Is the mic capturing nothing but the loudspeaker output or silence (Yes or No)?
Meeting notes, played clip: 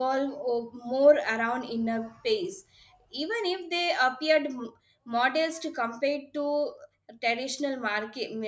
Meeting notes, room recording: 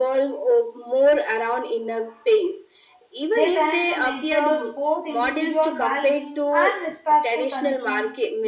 No